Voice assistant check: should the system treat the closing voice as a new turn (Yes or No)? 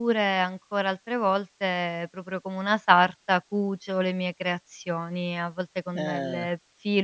No